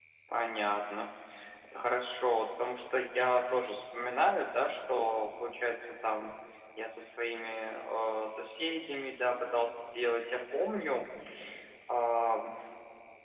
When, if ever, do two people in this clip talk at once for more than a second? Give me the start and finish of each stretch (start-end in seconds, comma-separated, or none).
none